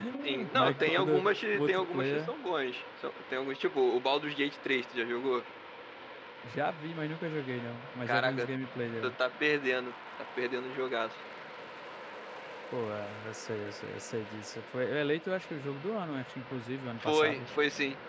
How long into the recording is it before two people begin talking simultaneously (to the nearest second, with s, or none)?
1 s